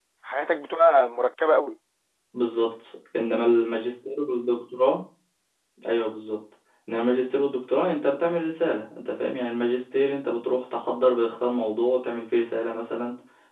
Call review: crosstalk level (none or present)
none